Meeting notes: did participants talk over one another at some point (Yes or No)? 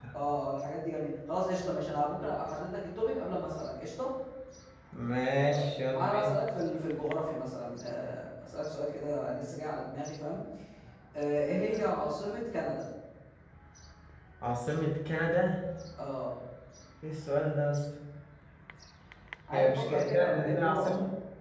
Yes